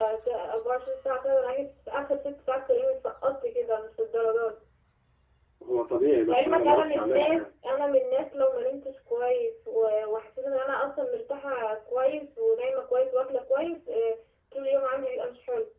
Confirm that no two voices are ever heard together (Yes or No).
No